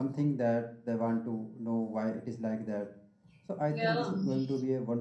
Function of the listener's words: listening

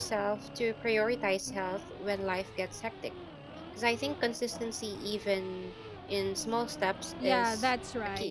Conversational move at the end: taking over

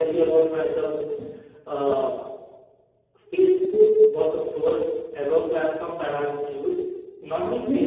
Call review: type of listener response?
listening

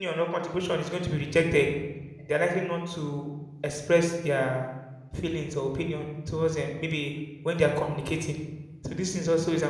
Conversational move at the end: listening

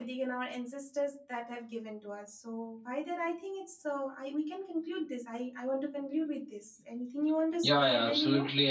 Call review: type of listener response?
taking over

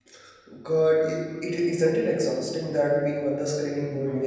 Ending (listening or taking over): taking over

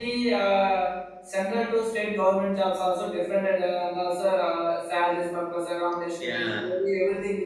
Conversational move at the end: listening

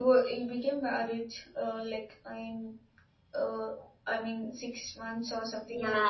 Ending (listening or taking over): taking over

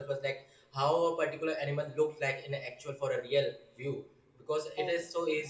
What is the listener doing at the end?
listening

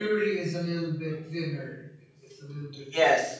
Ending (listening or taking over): taking over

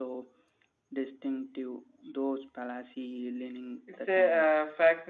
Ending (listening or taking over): taking over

